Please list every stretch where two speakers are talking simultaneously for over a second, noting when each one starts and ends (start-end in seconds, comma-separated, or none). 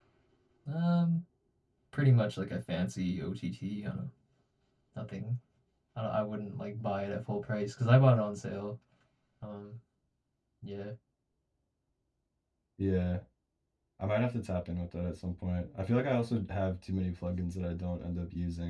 none